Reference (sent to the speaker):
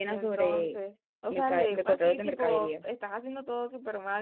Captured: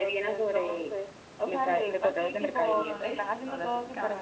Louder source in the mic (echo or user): echo